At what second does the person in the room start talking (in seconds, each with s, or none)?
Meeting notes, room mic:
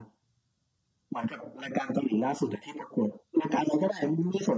none